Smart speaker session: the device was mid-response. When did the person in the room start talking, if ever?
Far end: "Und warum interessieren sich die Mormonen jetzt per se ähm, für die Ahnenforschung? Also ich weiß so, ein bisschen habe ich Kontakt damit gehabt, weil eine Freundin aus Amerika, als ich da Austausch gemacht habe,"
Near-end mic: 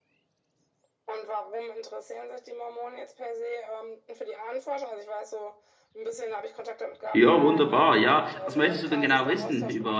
7.1 s

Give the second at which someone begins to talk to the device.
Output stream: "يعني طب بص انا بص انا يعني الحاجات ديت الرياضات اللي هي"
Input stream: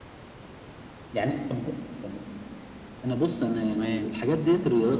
3.7 s

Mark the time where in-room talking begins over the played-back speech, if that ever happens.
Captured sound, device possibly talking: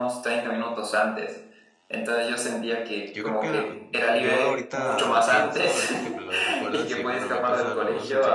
3.1 s

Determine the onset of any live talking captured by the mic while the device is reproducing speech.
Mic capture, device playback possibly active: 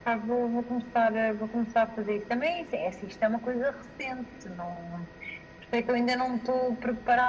none

